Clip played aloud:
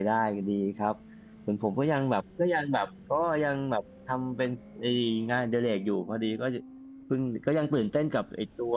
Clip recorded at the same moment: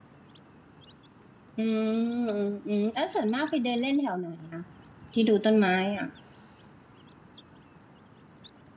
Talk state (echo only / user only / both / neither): user only